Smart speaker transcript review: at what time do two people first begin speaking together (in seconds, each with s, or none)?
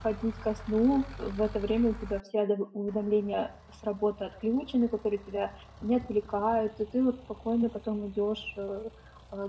none